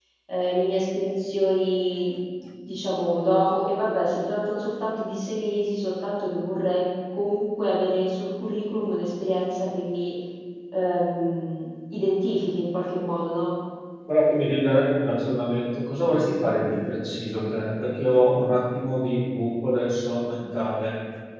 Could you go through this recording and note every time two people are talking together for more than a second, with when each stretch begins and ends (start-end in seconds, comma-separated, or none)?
none